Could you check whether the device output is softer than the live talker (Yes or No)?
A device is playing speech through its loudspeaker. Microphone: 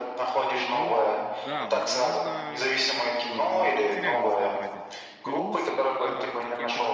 No